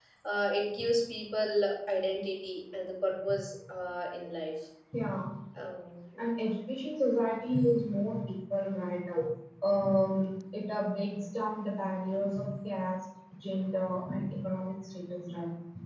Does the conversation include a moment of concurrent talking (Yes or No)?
No